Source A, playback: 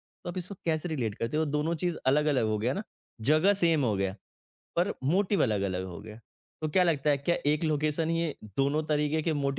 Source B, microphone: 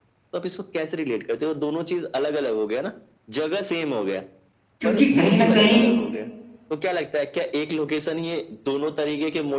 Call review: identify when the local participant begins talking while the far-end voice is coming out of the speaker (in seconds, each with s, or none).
4.8 s